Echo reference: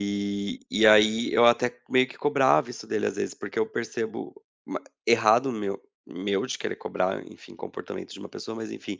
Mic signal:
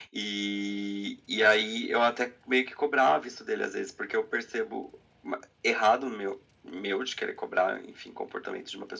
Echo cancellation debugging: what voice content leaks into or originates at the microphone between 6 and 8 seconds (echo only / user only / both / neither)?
echo only